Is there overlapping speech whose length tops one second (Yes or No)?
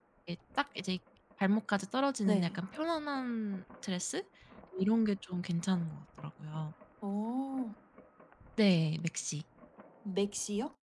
No